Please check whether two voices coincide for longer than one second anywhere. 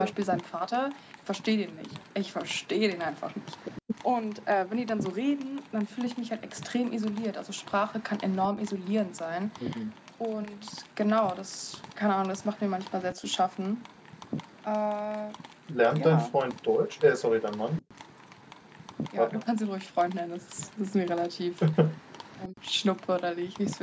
No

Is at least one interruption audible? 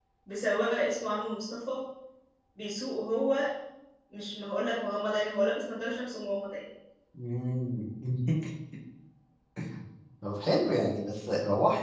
No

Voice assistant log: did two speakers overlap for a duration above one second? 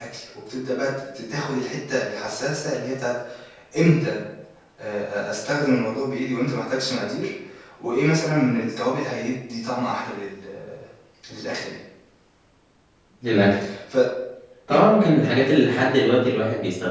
No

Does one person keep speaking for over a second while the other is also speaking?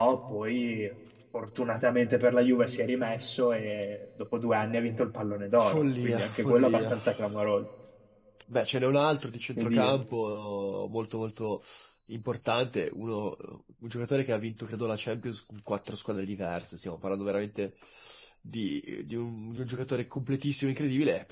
Yes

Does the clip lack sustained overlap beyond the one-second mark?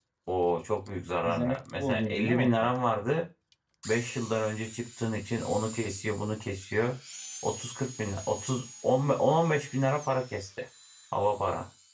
No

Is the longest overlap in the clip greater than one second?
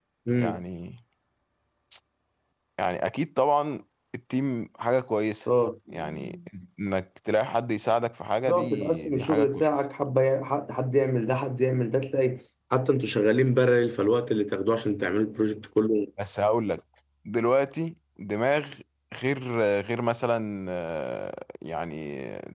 Yes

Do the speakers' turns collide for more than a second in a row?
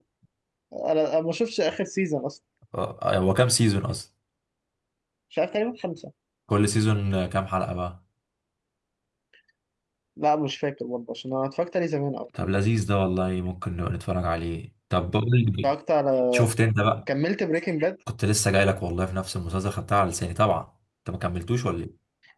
No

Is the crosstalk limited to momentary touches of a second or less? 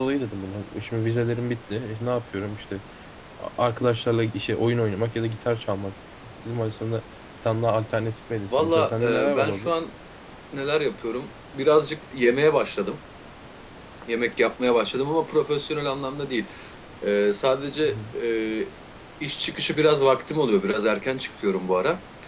No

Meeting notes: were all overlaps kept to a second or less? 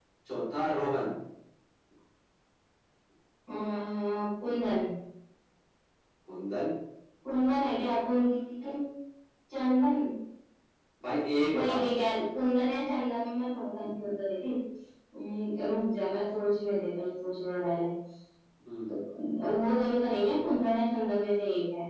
Yes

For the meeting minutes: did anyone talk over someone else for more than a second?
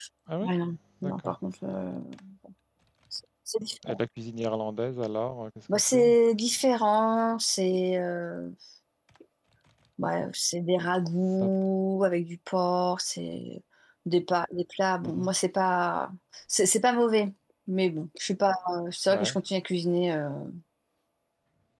No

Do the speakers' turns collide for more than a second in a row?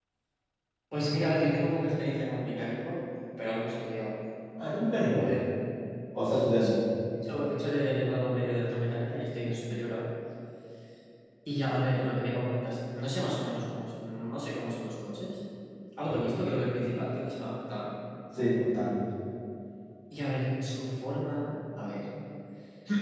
No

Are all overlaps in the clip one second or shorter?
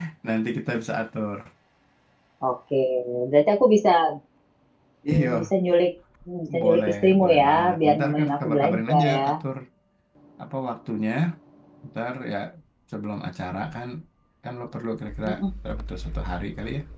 No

